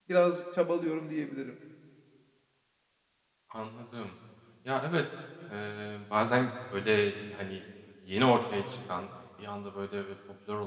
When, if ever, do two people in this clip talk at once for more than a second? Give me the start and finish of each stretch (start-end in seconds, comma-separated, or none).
none